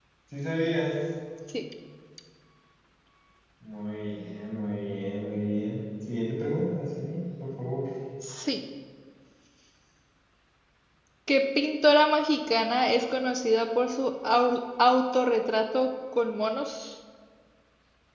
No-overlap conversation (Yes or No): Yes